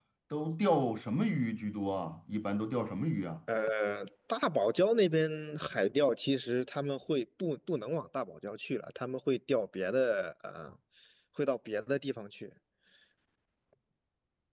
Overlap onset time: none

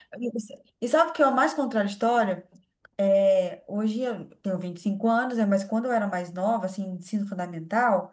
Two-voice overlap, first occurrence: none

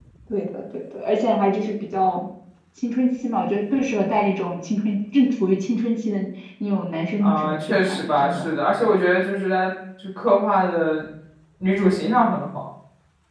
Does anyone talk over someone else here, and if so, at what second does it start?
7.2 s

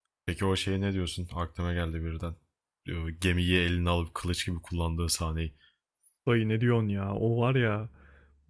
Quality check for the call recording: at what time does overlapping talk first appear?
none

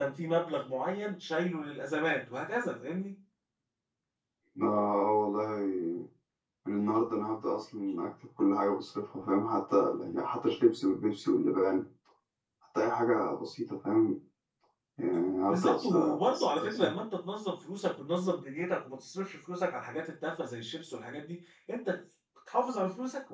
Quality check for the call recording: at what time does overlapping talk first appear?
15.5 s

